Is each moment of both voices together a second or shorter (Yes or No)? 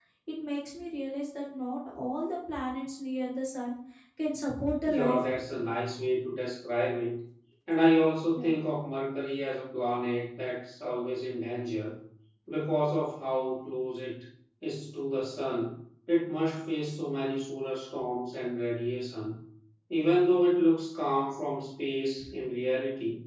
Yes